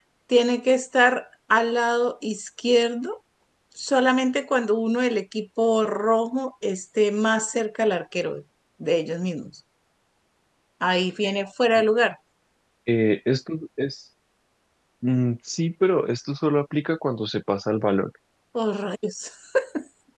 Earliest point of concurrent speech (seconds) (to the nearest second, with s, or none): none